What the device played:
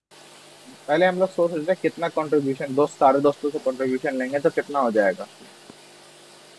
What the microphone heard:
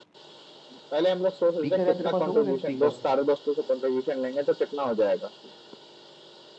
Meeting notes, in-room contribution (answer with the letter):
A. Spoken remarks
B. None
A